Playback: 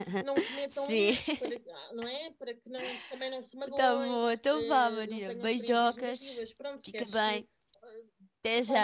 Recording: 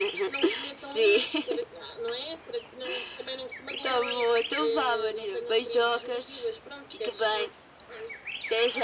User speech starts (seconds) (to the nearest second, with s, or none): none